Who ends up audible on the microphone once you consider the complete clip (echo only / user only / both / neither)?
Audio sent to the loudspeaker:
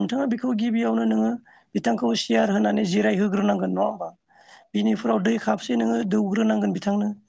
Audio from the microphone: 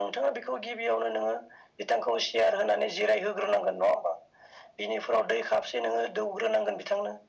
echo only